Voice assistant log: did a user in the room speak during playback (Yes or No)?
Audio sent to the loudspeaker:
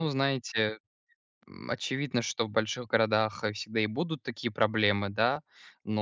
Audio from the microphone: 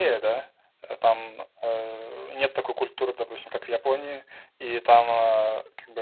Yes